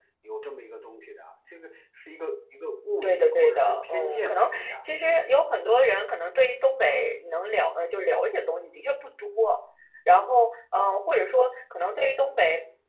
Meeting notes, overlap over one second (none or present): present